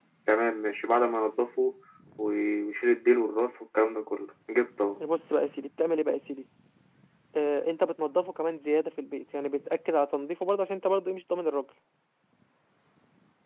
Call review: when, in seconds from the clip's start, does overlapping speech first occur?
none

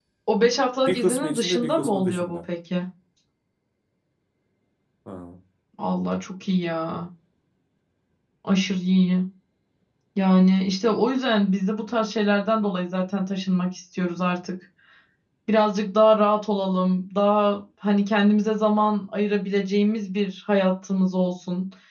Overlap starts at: 0.9 s

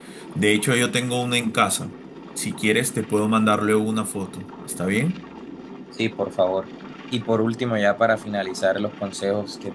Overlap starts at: none

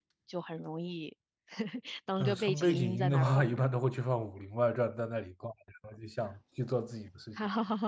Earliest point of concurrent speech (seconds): 2.2 s

